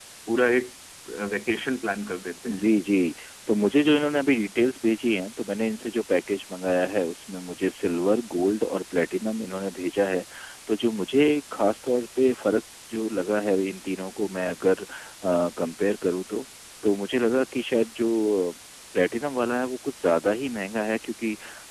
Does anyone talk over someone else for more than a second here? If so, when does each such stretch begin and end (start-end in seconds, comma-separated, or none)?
none